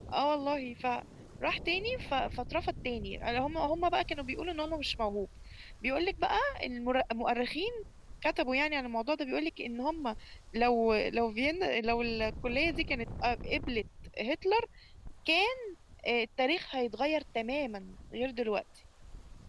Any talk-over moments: No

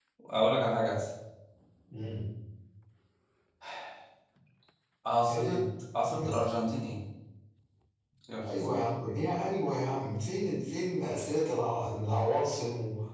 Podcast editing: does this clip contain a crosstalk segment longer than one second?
No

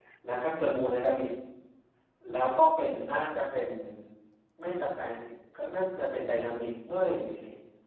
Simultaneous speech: No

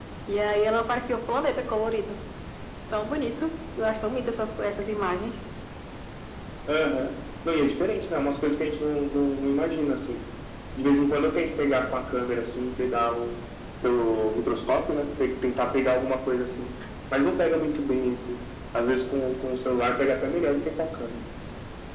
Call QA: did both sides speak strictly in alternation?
Yes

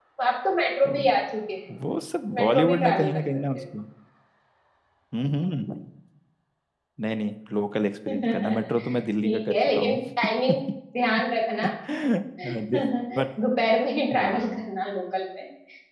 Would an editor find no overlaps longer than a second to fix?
No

